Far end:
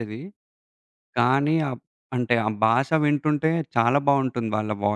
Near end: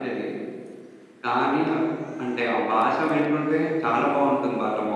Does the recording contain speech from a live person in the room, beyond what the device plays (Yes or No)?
No